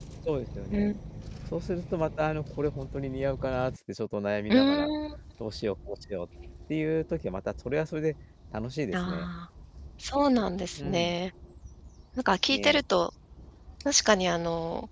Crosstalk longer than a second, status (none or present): none